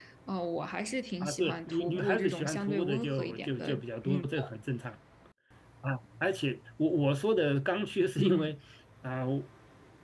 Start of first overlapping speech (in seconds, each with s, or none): 1.2 s